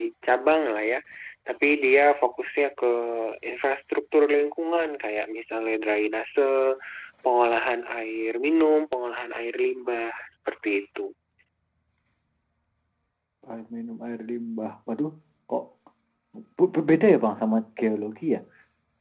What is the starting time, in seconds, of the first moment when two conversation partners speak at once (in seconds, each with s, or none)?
none